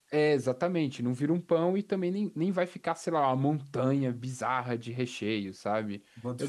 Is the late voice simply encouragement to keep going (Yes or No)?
Yes